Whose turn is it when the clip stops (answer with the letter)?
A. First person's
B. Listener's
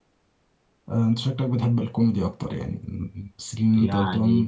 B